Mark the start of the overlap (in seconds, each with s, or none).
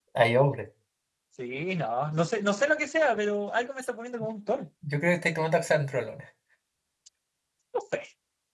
none